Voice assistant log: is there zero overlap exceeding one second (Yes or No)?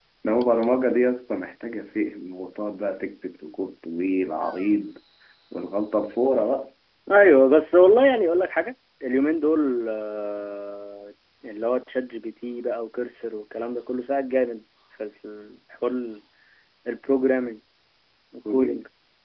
Yes